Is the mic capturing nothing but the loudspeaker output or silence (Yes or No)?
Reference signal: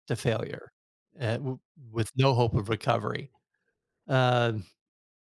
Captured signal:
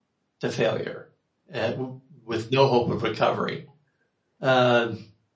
Yes